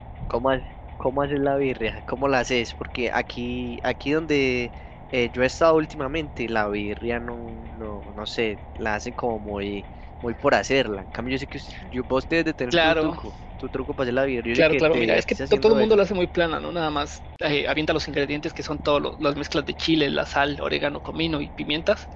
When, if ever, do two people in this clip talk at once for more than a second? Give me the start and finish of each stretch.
14.6-16.0

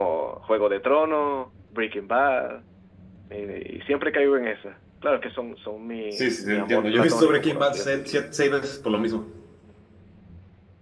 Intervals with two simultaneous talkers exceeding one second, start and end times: 6.1-8.2

